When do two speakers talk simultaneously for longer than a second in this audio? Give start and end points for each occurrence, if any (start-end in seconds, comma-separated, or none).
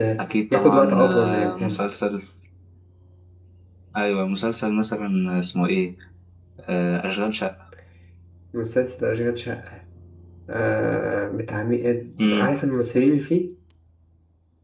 0.5-1.8